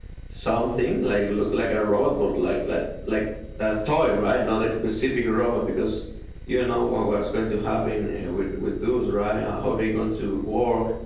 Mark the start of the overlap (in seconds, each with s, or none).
none